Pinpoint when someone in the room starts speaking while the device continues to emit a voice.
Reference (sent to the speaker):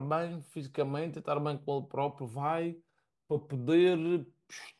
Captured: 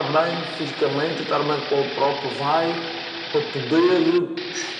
none

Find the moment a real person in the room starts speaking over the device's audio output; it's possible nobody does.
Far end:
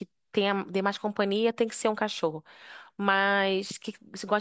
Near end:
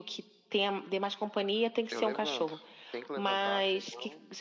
2 s

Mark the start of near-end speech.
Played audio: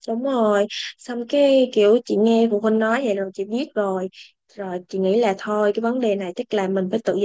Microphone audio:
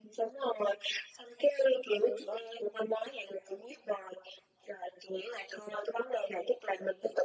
none

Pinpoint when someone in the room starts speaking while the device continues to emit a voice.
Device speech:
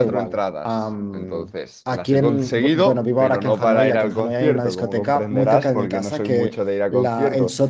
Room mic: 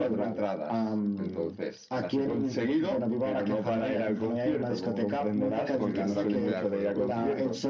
6 s

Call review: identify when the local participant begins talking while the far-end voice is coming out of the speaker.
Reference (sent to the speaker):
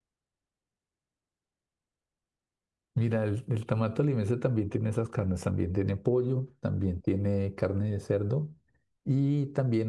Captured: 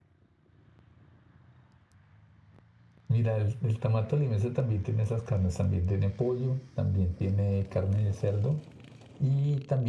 none

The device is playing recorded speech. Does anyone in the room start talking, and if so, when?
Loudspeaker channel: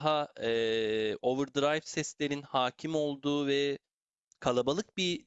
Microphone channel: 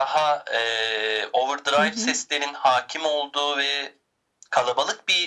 2 s

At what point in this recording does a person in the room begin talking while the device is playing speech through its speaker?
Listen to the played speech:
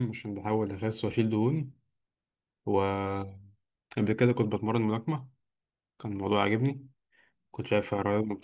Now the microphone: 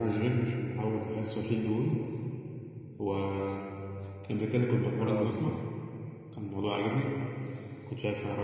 5 s

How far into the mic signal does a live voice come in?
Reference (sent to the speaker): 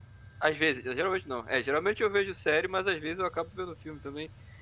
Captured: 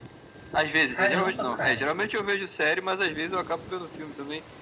1 s

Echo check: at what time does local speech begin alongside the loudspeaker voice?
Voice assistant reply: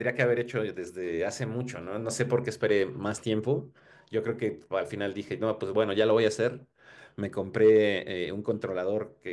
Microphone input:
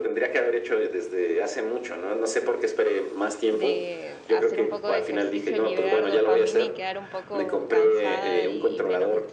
3 s

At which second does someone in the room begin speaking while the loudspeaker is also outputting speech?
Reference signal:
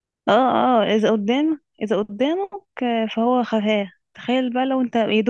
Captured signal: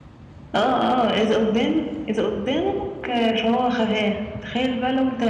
none

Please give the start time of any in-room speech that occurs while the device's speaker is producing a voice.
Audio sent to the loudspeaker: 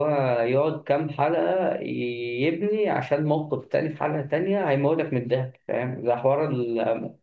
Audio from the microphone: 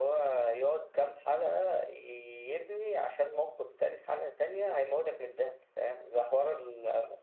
none

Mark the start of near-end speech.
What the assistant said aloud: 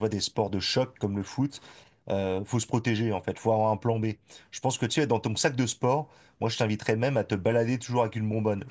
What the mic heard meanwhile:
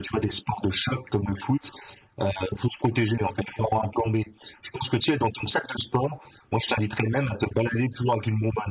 none

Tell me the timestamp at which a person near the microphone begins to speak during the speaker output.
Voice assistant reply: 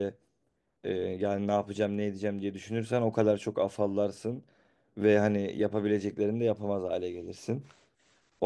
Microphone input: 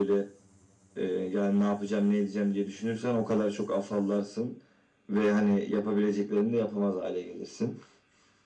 none

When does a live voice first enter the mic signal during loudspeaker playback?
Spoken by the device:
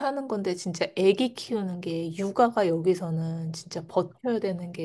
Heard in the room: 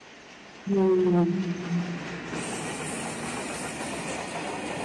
1 s

